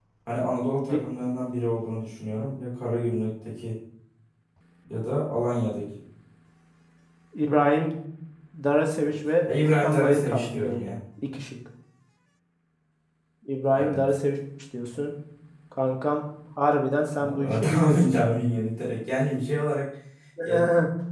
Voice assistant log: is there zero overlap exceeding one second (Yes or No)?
No